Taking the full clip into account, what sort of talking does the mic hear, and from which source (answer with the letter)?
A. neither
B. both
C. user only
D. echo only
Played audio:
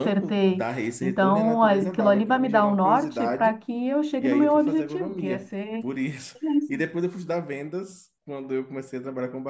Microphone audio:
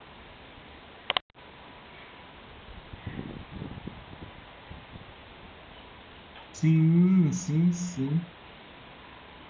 C